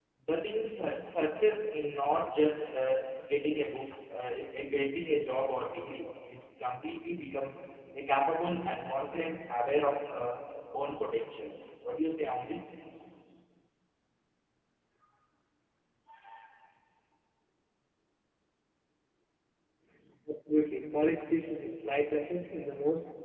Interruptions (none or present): none